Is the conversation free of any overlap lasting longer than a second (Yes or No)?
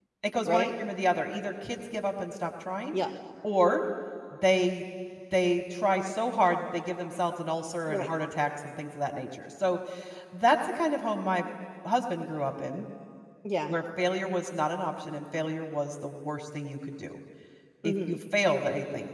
Yes